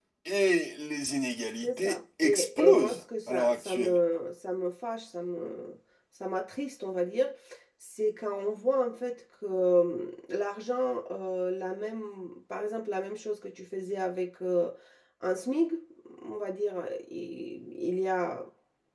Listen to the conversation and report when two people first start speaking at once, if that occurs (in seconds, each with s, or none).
1.6 s